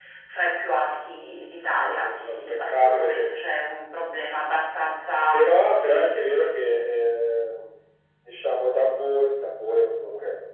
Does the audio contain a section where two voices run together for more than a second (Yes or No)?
Yes